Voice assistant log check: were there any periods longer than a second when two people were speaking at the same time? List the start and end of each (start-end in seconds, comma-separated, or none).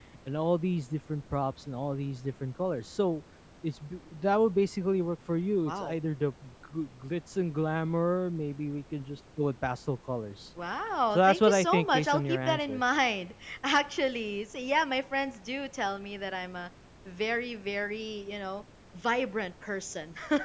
11.1-12.8